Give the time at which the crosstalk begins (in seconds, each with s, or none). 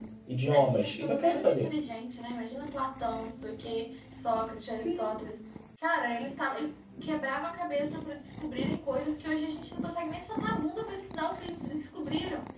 0.5 s